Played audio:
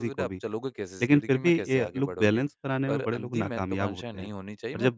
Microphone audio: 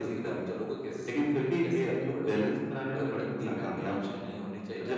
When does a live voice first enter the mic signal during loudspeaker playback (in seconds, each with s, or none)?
none